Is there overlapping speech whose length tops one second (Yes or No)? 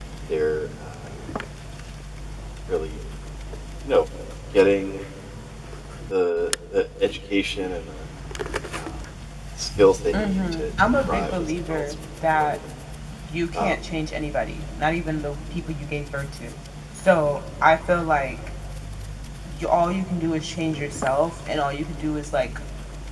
Yes